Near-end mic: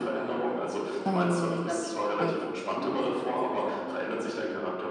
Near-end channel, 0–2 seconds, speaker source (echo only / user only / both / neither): both